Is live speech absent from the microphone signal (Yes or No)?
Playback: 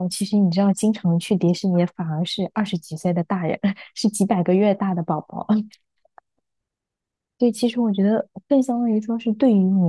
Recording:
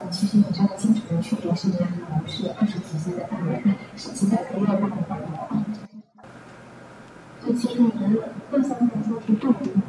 Yes